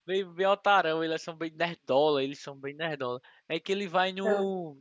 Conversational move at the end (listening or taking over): listening